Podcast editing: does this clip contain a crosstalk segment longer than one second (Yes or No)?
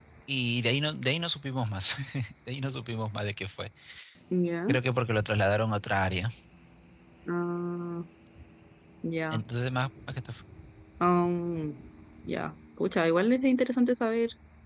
No